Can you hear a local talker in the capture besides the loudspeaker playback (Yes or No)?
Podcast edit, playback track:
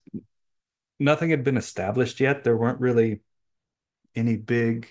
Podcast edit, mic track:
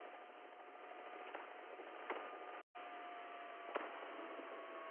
No